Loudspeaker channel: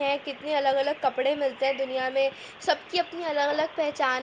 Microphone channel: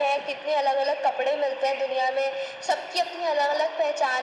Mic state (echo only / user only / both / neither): echo only